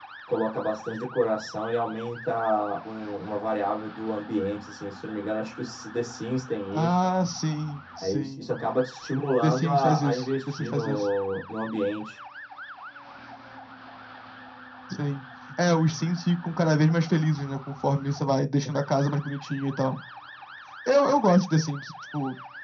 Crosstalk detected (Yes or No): Yes